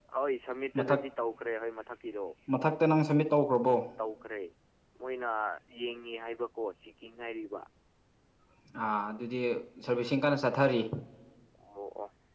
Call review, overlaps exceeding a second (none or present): none